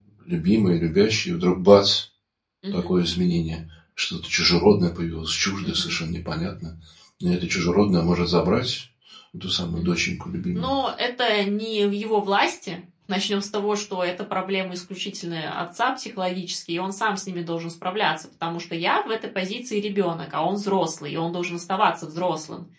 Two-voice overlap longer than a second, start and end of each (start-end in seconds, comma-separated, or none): none